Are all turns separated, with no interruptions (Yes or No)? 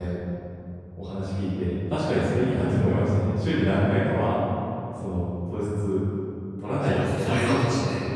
No